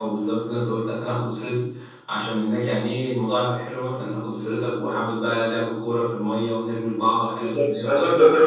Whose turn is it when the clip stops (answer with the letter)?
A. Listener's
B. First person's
A